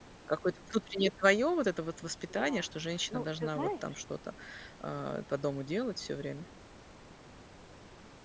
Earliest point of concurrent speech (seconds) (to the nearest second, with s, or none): 2 s